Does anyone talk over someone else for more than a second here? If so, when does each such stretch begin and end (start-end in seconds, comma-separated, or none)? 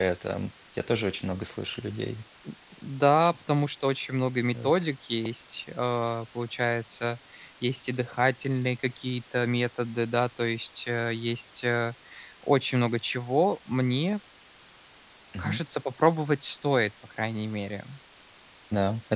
none